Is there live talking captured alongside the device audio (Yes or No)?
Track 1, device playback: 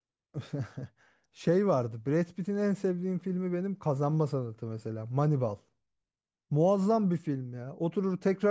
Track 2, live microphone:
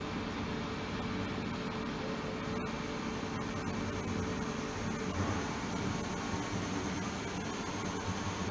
No